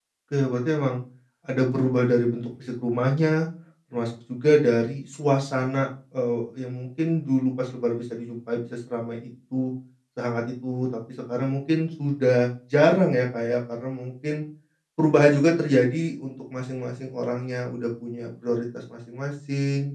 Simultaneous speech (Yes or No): No